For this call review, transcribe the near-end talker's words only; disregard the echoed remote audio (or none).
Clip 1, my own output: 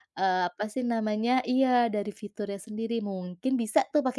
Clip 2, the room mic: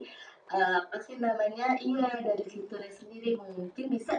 none